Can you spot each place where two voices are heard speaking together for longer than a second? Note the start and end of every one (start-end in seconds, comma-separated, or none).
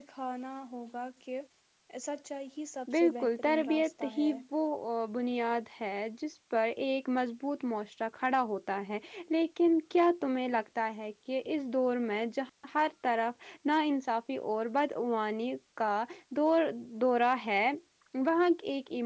2.9-4.4